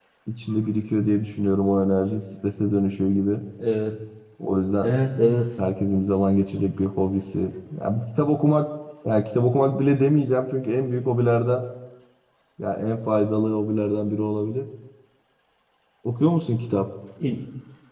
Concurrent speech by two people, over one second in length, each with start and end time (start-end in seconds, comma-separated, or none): none